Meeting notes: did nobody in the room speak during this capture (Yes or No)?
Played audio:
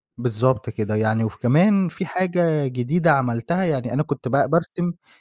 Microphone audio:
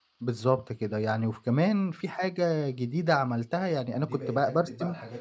No